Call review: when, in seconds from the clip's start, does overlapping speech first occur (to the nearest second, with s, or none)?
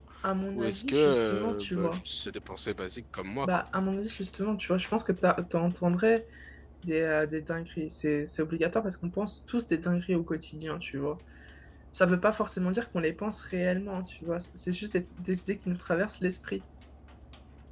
1 s